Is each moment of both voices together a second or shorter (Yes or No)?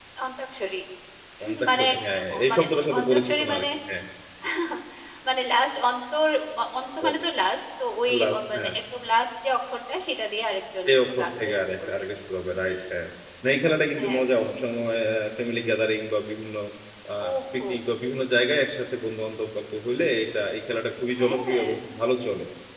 No